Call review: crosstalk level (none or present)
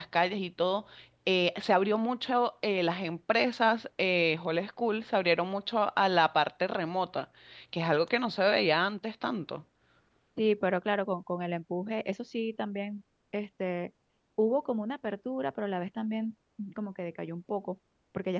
none